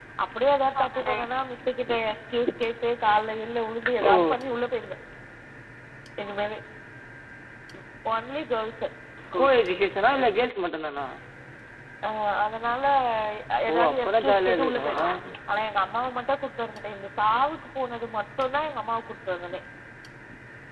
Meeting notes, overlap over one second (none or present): present